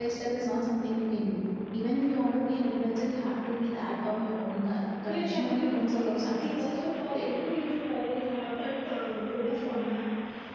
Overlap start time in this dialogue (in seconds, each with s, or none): 5.1 s